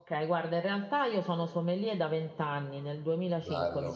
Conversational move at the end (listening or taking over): listening